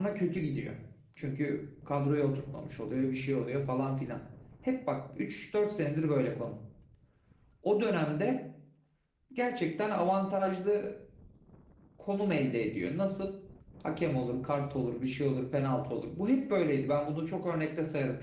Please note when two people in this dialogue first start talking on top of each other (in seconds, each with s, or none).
none